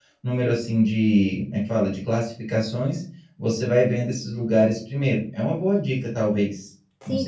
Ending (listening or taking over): taking over